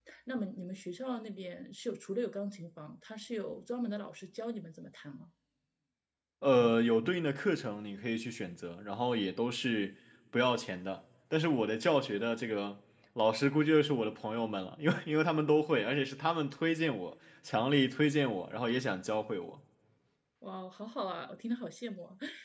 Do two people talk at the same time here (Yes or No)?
No